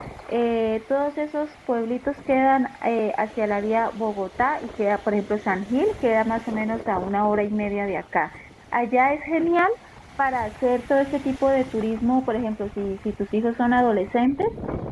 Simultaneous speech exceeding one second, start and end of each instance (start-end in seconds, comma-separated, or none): none